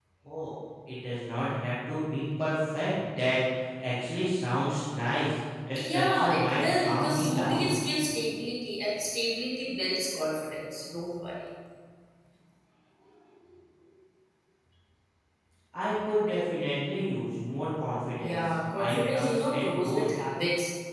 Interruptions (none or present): present